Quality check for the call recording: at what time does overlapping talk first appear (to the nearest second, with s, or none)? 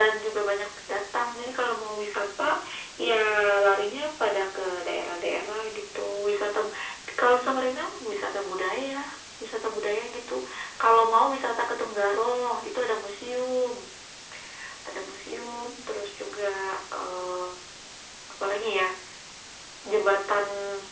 none